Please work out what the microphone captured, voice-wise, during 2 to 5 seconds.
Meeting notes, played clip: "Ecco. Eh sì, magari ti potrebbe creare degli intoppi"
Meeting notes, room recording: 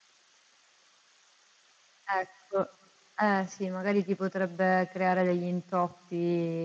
echo only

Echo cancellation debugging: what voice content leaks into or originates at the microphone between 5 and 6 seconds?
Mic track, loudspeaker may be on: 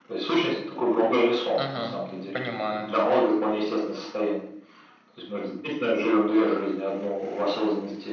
echo only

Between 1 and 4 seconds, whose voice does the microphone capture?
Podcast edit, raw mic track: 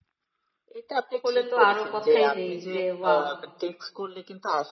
both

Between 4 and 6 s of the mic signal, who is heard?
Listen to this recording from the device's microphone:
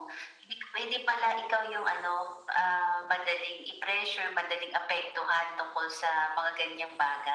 echo only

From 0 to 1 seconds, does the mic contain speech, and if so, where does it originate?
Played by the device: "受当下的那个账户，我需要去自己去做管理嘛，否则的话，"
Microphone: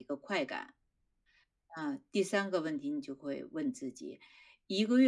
user only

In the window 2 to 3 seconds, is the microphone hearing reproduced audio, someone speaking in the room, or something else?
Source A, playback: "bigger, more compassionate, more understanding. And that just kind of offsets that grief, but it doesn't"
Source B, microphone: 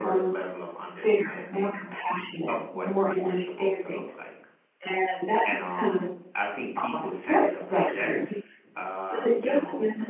both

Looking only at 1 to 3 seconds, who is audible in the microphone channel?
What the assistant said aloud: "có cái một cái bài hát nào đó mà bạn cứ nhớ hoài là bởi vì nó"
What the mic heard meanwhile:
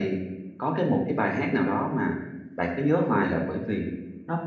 echo only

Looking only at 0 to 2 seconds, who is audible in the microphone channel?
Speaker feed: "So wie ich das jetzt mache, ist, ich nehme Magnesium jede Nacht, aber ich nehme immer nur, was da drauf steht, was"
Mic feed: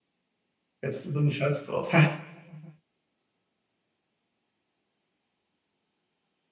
user only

